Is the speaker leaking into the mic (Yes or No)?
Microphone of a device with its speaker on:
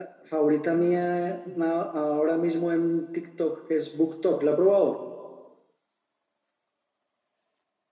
No